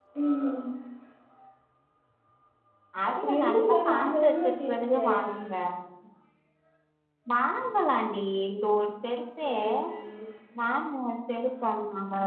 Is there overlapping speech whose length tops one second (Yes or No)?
Yes